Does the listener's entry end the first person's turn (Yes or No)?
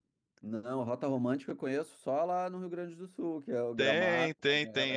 Yes